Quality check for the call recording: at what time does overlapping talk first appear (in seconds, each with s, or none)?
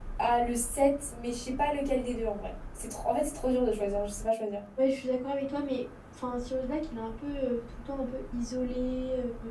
none